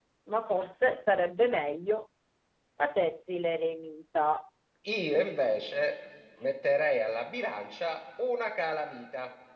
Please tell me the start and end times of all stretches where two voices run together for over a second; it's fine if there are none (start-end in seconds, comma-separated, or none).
none